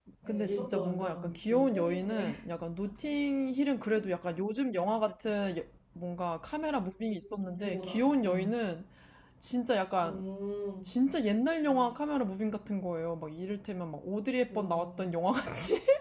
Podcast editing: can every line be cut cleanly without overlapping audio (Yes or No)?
No